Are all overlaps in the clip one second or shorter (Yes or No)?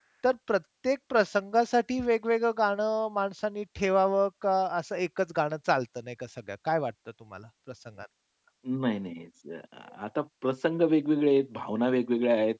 Yes